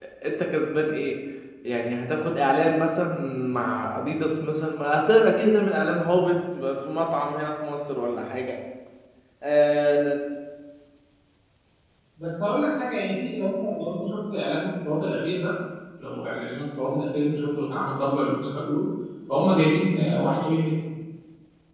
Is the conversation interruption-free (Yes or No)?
Yes